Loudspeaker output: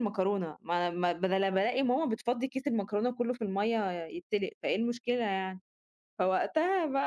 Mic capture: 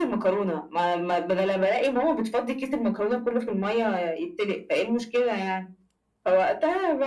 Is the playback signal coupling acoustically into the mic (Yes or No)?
Yes